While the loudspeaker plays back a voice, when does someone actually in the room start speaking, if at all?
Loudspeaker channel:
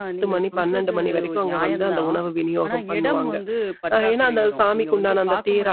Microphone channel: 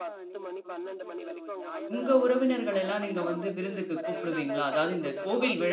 1.9 s

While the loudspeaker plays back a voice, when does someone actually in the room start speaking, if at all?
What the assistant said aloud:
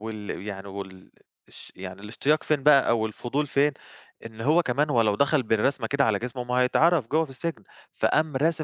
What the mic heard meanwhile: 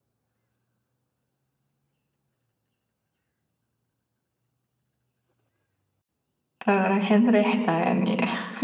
6.7 s

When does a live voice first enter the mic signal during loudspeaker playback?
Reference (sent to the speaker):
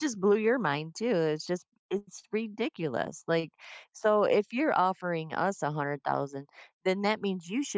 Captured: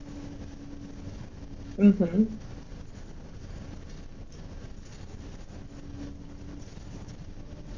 1.8 s

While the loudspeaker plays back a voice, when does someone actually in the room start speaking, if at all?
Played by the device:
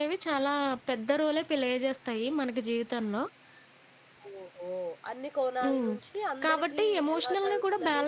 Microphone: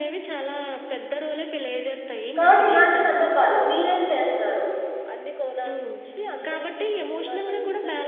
2.4 s

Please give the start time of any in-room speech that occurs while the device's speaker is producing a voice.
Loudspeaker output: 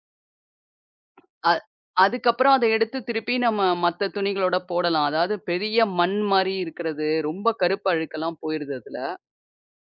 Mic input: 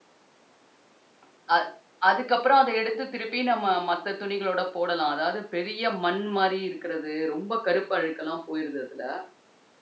none

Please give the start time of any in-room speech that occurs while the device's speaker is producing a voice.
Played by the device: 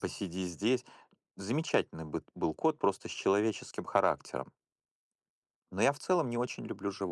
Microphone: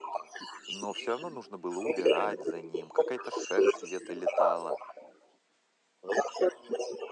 0.7 s

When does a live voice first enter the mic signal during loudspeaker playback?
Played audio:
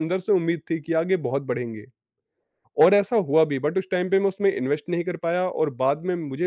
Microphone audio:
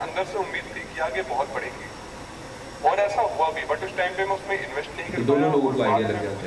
5.1 s

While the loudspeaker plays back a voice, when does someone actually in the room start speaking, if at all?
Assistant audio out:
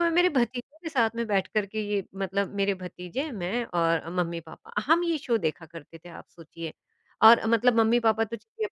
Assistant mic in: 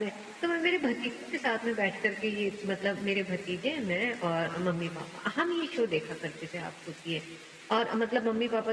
none

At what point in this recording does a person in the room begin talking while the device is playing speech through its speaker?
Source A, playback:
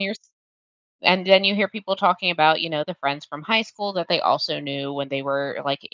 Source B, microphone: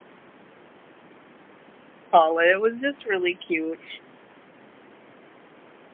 2.1 s

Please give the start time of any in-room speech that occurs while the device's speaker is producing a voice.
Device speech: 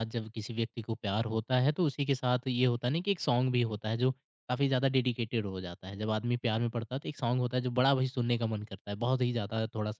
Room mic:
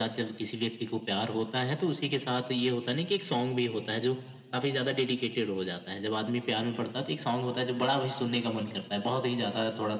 none

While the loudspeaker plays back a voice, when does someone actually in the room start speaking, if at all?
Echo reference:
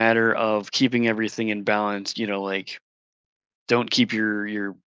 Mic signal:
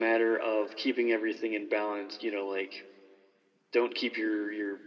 none

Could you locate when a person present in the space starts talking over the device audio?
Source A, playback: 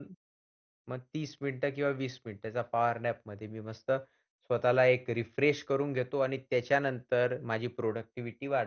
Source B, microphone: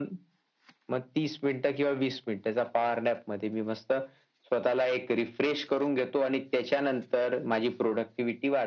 none

